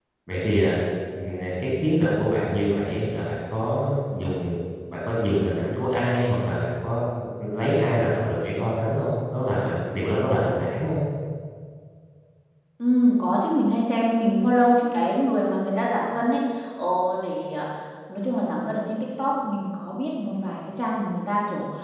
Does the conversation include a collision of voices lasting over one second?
No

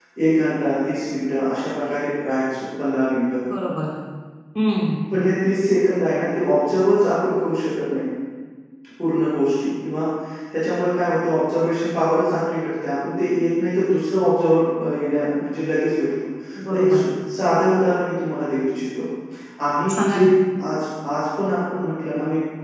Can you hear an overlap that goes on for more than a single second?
No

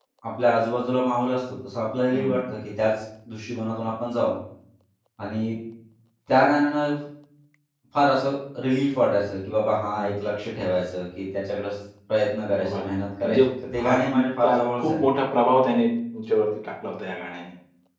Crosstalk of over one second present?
Yes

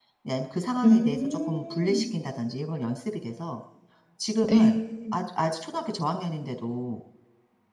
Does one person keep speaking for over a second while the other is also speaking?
Yes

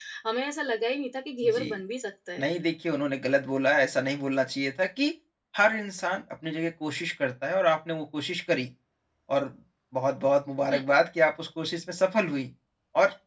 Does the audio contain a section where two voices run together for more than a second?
No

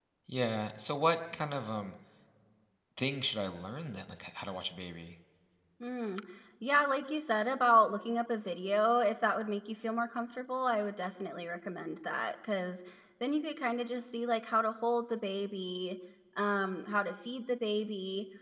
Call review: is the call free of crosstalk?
Yes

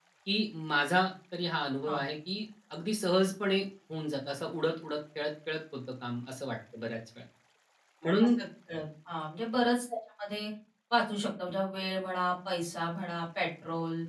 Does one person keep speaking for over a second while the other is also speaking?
No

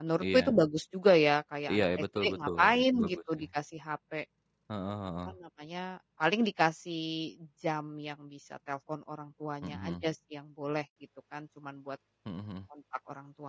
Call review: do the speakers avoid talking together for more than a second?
No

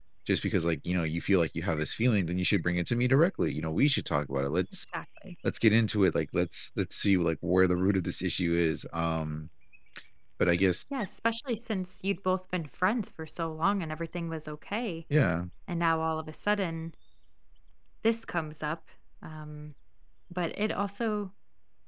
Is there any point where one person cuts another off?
No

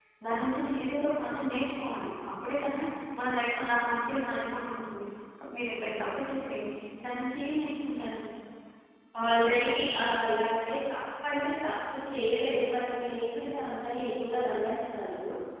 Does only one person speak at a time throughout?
Yes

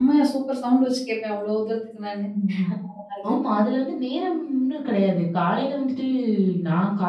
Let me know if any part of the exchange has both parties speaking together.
No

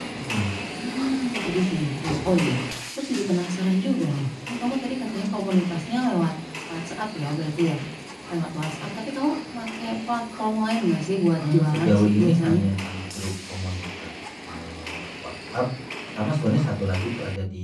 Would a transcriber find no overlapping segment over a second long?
No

